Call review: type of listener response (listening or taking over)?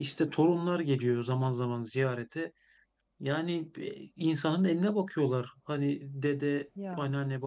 listening